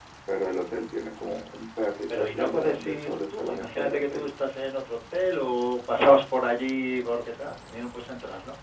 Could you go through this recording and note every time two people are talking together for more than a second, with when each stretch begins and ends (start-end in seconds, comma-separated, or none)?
2.1-4.3